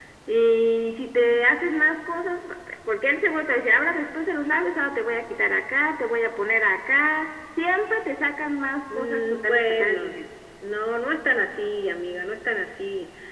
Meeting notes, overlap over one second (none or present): present